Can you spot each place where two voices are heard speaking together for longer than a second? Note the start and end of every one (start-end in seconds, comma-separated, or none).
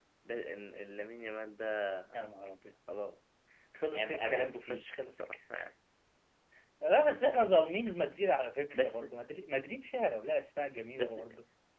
3.9-5.2